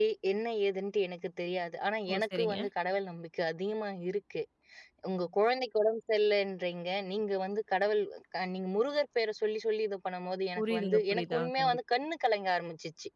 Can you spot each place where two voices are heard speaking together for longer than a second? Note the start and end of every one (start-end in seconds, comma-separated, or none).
10.6-11.8